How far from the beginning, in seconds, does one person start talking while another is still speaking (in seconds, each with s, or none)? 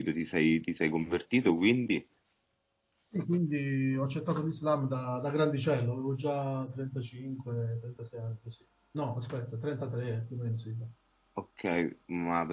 none